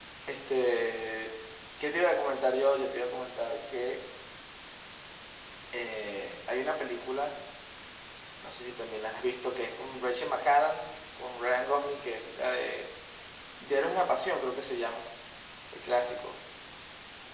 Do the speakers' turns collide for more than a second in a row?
No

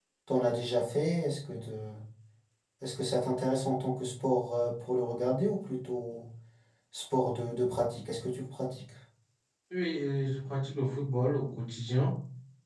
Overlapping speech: No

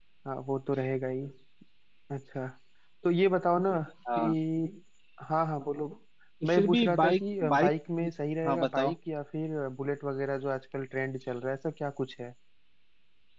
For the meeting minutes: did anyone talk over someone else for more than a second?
Yes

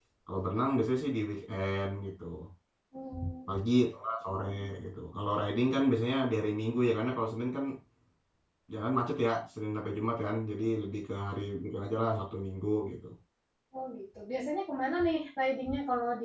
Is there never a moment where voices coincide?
Yes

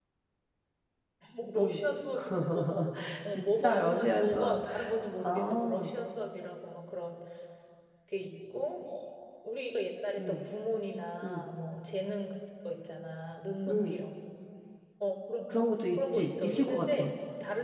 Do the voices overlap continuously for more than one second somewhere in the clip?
Yes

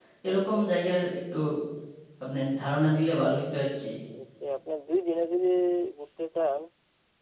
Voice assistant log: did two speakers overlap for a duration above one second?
No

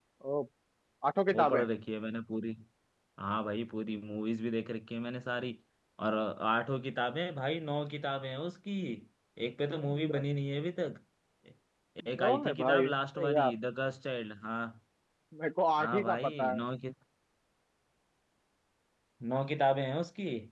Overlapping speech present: Yes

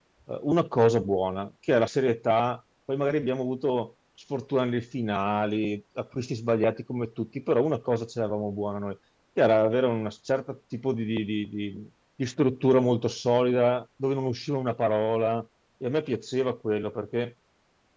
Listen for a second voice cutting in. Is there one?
No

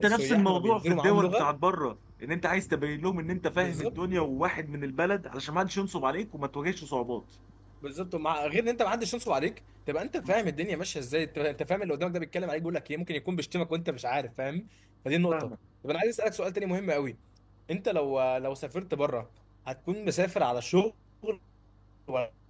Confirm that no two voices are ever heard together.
No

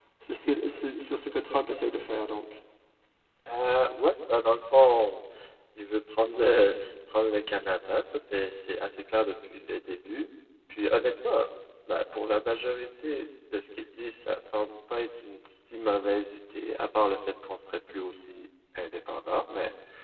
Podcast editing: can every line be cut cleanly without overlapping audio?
Yes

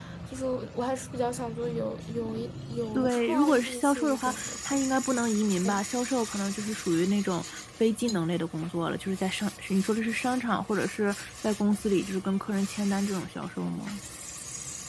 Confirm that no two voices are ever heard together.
No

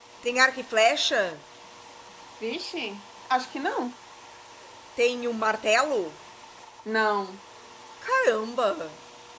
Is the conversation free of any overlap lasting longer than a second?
Yes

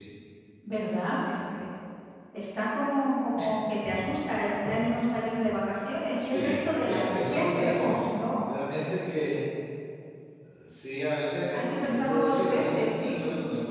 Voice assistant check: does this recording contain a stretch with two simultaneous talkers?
Yes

